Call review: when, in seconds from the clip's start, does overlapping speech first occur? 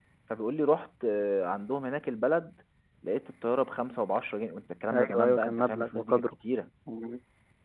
5 s

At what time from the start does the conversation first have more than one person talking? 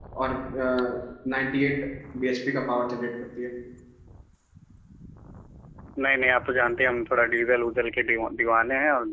none

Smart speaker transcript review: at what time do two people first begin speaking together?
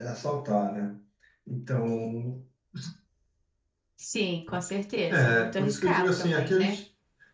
5 s

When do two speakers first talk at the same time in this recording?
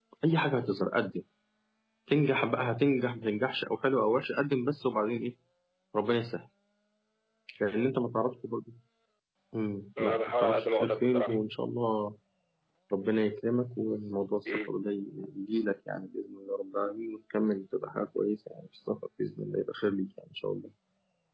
10 s

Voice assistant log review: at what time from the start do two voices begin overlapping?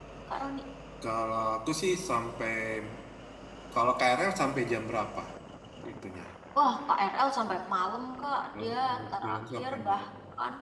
9 s

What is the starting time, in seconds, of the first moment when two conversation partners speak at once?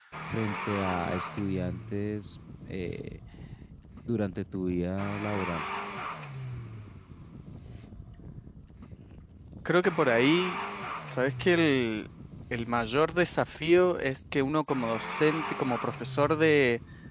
none

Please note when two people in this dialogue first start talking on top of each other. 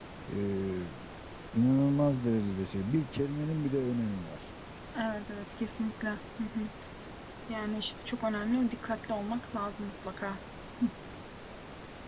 none

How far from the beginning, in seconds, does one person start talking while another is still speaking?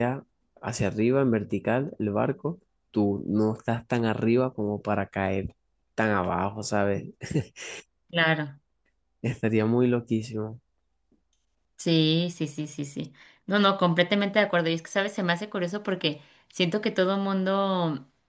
none

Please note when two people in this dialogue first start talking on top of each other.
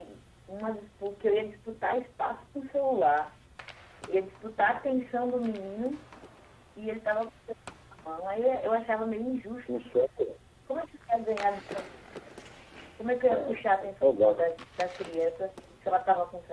13 s

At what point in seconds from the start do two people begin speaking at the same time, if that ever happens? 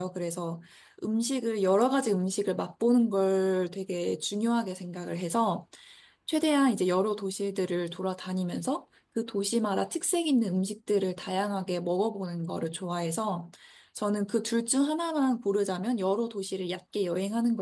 none

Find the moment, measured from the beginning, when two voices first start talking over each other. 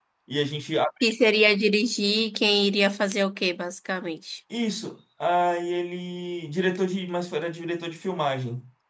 none

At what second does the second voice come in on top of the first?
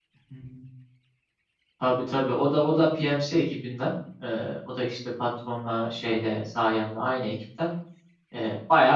none

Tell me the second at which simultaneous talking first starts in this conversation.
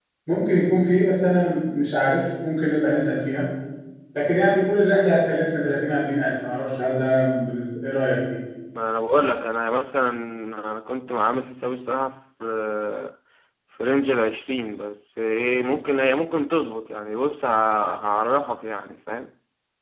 none

